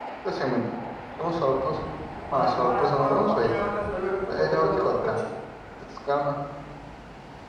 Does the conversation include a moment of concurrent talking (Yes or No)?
Yes